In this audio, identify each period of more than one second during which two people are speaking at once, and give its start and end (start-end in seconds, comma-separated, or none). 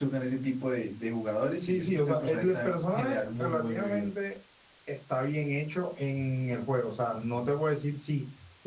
1.6-4.1